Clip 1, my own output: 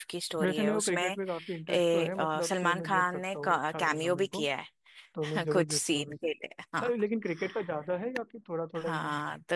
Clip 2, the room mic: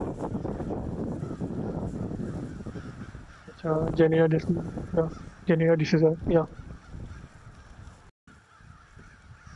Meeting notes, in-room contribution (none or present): present